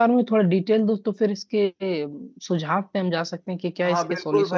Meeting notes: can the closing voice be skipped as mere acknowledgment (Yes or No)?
No